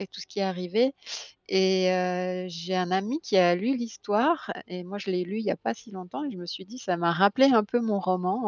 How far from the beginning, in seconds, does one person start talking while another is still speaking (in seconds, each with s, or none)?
none